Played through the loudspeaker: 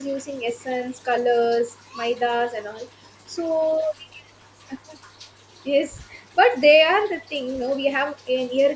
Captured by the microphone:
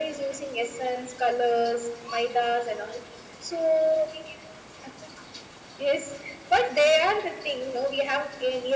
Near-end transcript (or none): none